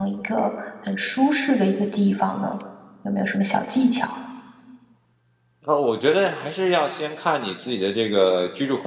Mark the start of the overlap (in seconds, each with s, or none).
none